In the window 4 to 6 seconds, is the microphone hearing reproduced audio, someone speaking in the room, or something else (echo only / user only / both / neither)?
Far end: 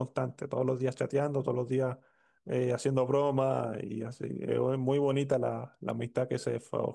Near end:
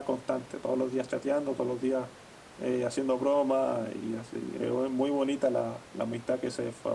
echo only